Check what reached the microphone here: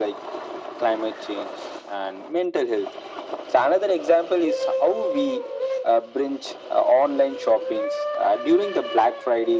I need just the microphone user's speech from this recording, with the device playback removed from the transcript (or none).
none